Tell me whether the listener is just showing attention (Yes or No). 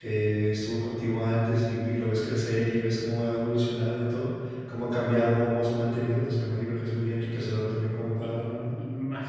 No